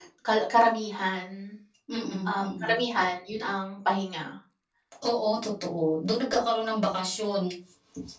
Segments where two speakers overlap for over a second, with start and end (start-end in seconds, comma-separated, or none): none